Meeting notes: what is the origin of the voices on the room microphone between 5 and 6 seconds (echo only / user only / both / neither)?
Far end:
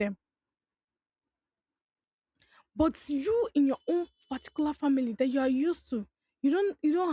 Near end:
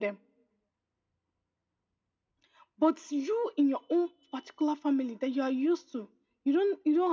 echo only